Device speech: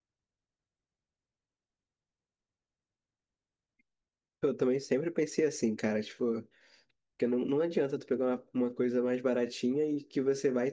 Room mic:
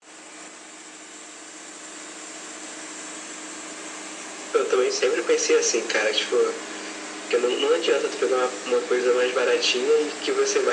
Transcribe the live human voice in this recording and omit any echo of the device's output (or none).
none